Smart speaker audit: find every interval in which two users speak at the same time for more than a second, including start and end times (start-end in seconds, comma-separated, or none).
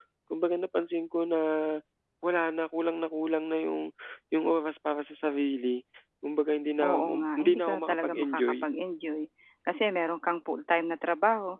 6.8-8.7